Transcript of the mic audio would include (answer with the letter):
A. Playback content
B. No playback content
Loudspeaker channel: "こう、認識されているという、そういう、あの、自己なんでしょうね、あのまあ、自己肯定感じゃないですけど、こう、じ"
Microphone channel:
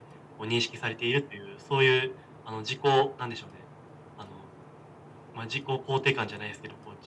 A